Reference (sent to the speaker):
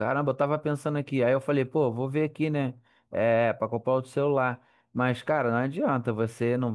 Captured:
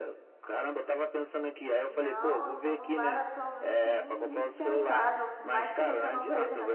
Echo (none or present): present